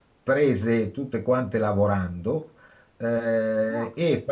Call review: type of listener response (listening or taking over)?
listening